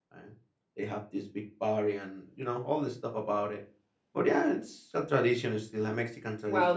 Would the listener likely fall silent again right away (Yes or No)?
No